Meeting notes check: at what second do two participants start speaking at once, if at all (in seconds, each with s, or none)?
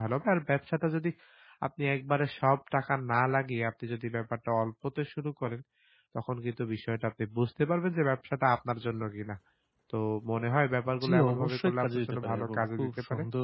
10.9 s